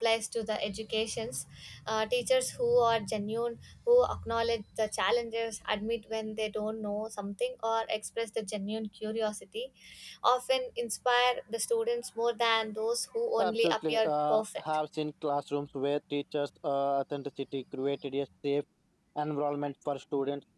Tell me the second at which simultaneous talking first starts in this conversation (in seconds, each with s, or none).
13.4 s